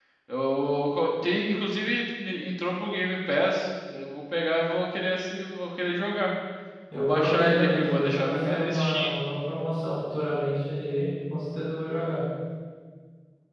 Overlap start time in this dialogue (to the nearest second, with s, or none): 7 s